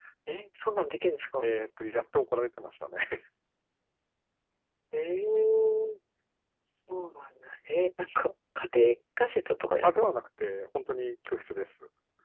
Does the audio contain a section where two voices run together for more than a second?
No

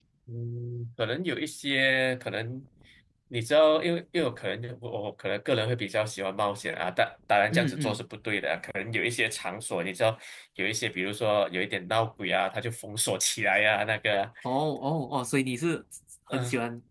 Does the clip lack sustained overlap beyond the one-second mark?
Yes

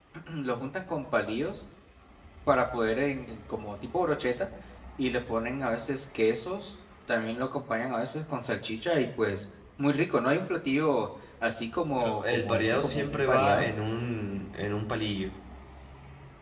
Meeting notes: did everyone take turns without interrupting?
No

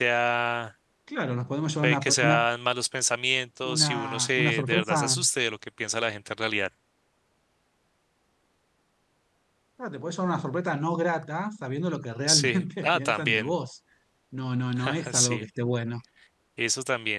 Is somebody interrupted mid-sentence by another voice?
Yes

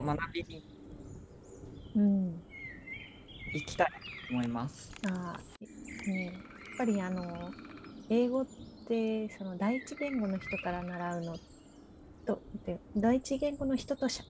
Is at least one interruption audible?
No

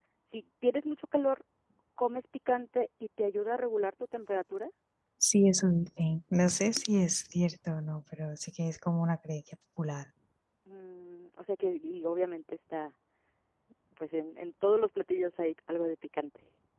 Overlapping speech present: No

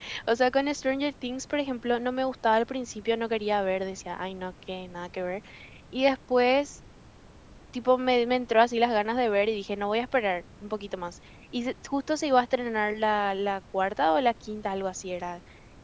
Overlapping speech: No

